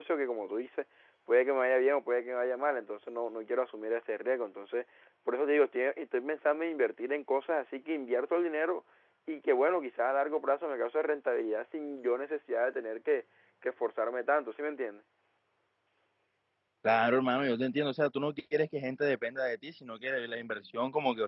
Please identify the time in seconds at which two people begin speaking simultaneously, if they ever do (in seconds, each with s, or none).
none